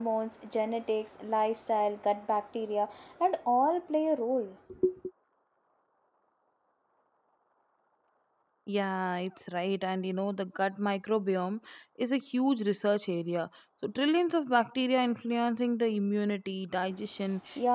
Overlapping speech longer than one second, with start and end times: none

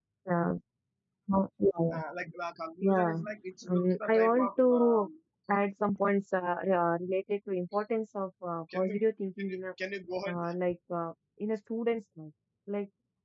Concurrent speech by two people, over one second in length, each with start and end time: 3.7-5.1

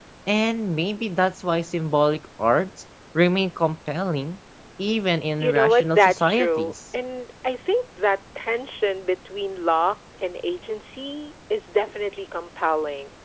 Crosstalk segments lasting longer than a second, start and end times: 5.4-6.7

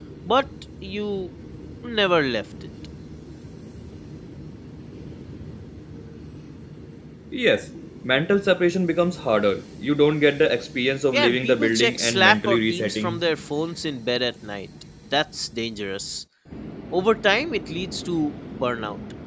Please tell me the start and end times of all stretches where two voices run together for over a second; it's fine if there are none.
11.1-13.2

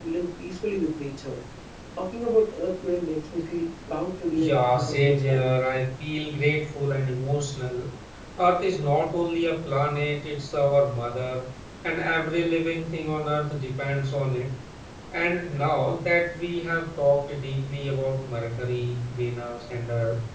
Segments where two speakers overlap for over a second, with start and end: 4.3-5.5

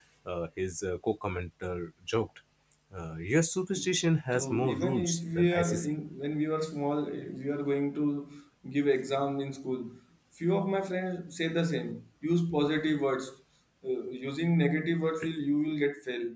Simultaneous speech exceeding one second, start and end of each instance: 4.3-5.9

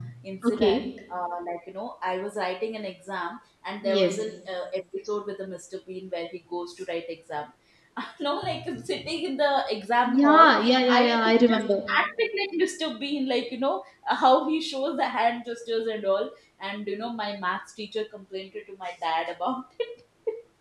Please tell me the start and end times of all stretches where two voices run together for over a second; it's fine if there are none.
10.0-11.6

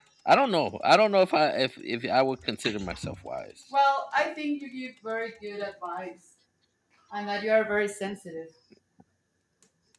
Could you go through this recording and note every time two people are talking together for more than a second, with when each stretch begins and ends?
none

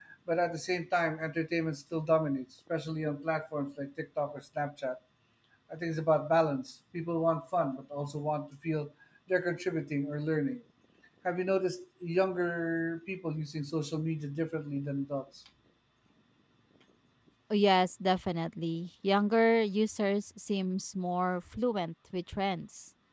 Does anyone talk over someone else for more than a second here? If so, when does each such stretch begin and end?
none

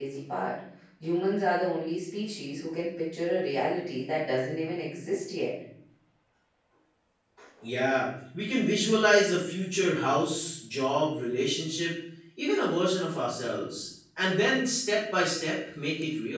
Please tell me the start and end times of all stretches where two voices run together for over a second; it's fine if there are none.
none

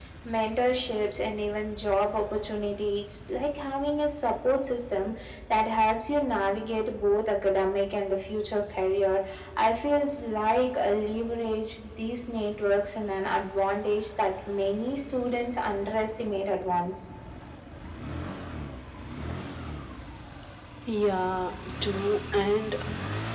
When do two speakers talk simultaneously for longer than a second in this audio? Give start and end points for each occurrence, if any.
none

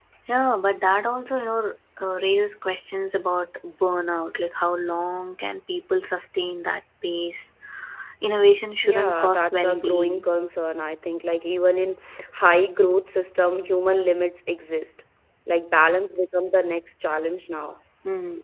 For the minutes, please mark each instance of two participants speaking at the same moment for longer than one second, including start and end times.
8.8-10.2

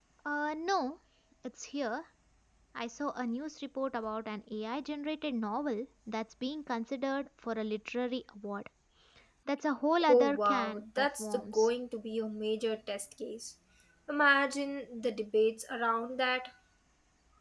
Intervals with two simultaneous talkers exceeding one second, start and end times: 10.1-11.7

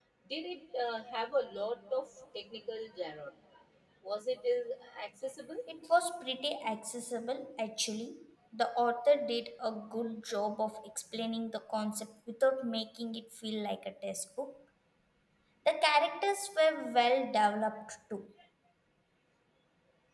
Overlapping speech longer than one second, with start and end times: none

